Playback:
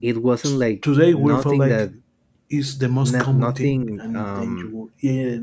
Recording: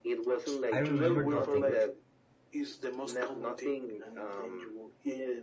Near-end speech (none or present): present